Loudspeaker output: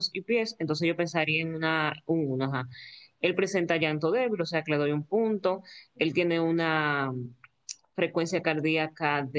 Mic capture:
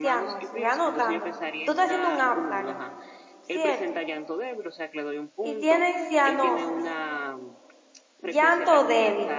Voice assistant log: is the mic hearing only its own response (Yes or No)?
No